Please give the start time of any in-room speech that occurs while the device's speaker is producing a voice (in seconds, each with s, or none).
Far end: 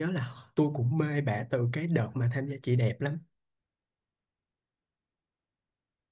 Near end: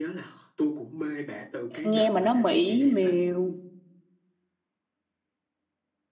1.8 s